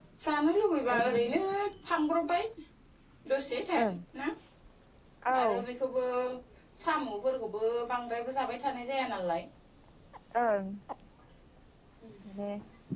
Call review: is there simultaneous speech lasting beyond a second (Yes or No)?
No